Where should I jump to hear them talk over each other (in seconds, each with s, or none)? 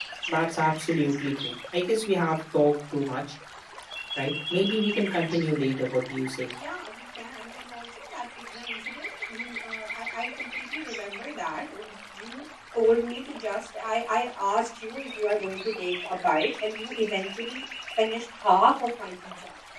none